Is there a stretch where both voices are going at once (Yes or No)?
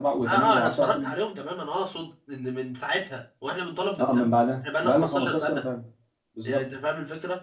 Yes